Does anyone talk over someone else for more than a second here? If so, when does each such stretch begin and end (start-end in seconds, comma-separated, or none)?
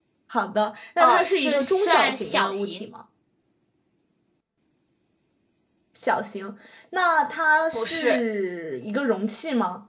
1.0-2.9